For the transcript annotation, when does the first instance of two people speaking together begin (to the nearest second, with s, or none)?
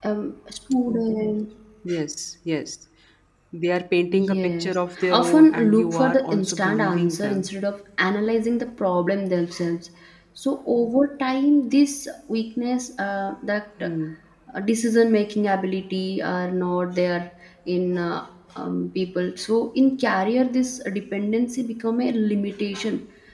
4 s